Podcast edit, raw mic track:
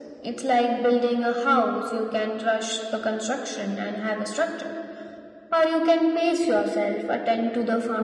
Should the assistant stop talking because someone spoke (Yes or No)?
No